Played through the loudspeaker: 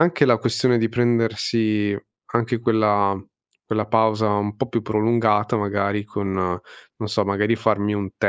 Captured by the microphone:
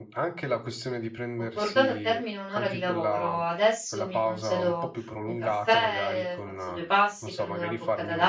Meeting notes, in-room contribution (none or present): present